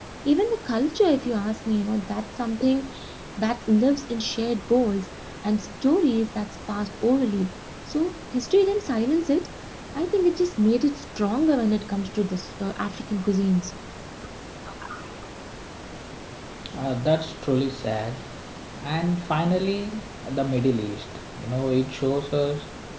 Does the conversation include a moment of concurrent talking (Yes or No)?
No